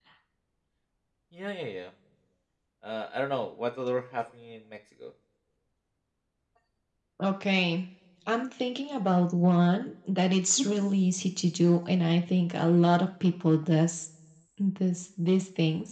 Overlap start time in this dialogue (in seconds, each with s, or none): none